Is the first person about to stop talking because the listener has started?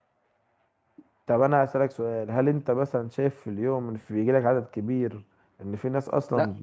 Yes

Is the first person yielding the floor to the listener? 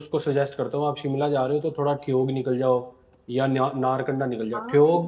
No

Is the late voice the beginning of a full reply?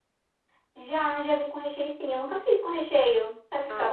Yes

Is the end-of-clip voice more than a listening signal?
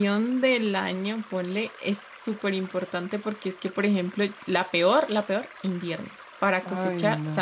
No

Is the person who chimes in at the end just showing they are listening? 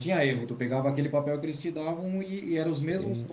Yes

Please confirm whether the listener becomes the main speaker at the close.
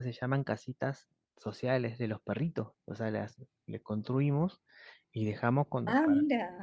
No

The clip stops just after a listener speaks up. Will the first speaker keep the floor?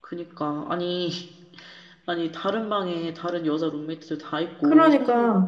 Yes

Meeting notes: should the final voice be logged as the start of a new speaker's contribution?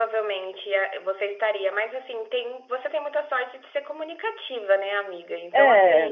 No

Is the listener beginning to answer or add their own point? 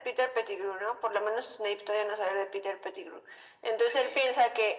No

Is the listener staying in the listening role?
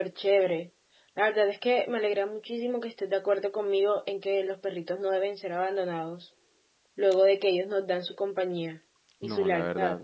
No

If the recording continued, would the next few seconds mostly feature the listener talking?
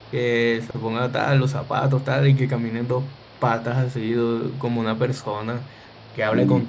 No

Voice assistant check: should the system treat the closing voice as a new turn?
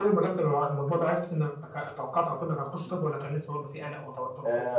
Yes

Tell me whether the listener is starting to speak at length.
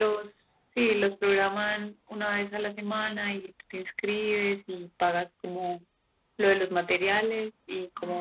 Yes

